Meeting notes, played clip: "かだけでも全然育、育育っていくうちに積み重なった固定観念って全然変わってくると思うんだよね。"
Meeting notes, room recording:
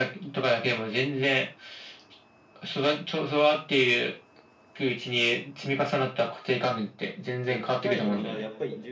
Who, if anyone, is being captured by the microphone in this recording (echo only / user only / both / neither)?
both